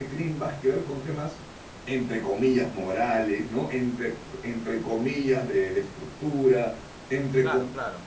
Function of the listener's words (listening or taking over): listening